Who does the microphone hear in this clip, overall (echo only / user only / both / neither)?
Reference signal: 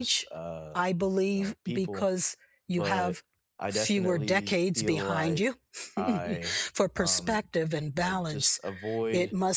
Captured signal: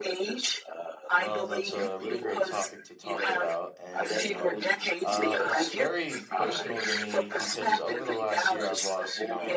both